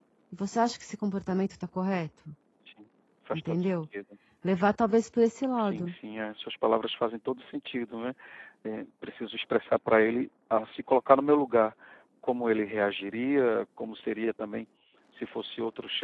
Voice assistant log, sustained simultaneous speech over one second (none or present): none